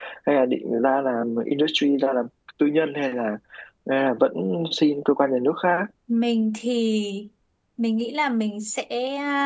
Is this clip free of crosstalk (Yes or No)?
Yes